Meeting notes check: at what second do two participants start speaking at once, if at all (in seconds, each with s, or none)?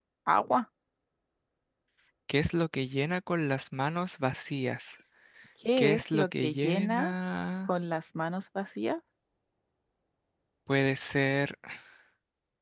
5.8 s